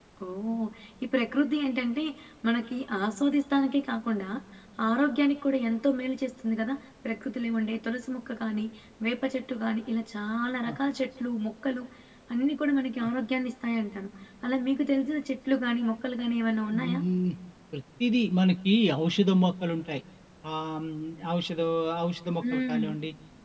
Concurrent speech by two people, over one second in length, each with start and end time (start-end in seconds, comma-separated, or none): none